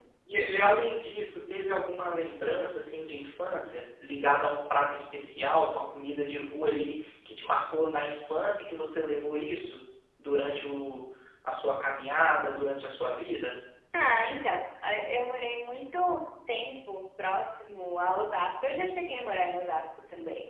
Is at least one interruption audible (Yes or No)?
No